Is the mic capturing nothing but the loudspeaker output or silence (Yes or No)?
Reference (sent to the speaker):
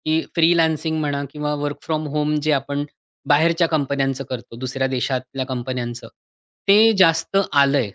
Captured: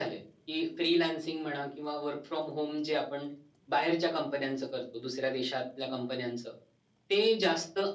Yes